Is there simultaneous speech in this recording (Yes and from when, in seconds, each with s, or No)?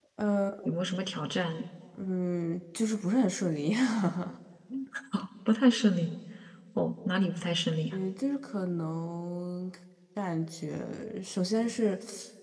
No